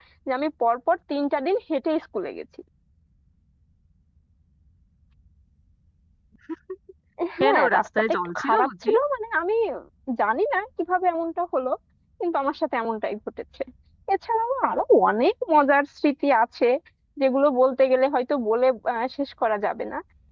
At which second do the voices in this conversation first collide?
7.4 s

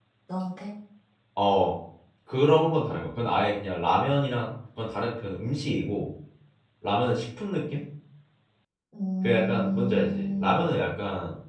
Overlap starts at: 9.2 s

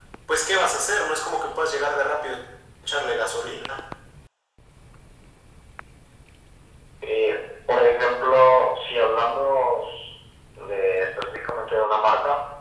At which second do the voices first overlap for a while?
none

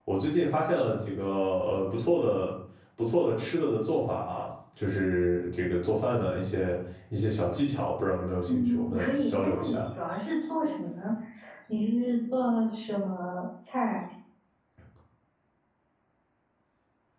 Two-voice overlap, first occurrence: 8.5 s

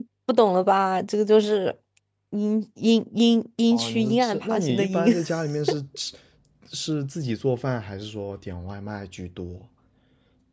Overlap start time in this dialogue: 3.7 s

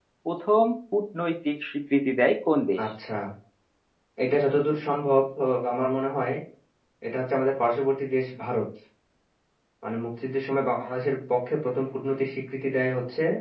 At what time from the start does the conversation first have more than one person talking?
none

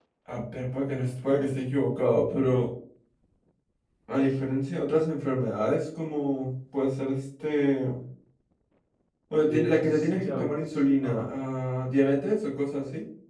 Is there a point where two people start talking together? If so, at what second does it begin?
9.4 s

